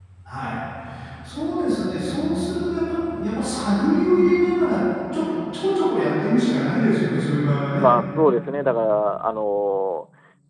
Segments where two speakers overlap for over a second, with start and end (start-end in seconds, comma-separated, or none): none